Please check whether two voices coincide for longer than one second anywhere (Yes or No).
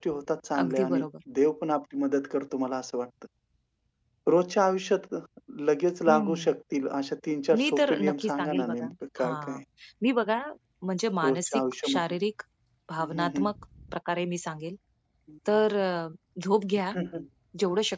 Yes